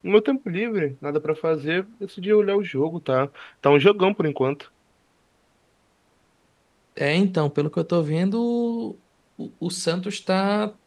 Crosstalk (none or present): none